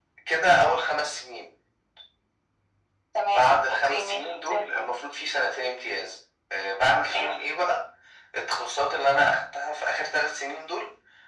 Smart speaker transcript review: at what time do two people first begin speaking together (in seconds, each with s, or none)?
3.3 s